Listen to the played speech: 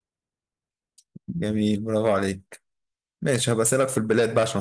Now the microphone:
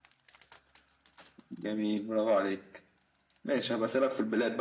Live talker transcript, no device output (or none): none